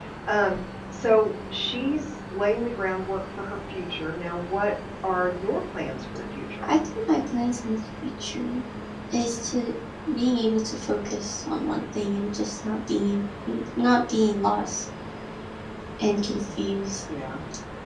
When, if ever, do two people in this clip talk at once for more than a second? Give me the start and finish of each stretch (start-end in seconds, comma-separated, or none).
none